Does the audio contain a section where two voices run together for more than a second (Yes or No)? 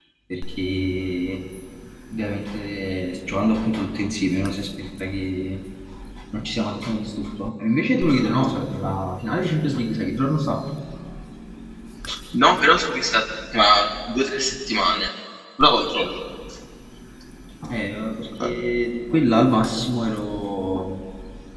No